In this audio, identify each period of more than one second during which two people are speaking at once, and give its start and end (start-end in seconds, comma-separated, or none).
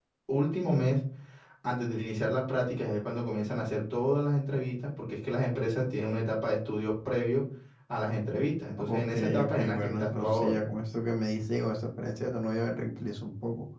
8.8-10.5